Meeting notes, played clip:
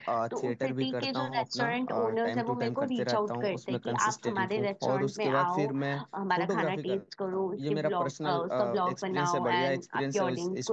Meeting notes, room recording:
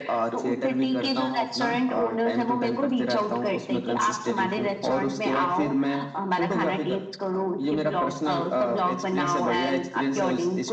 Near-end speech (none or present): none